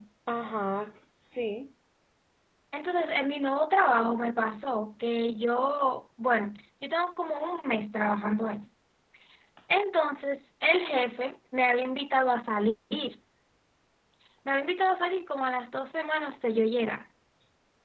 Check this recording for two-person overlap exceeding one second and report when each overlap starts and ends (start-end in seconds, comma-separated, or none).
none